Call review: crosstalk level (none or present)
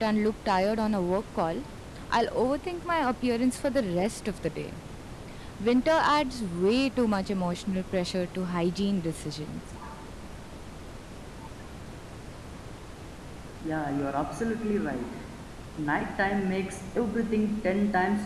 none